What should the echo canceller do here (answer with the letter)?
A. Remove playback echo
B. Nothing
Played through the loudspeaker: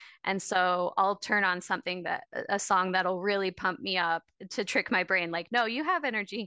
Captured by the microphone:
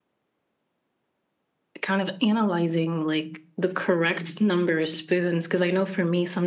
B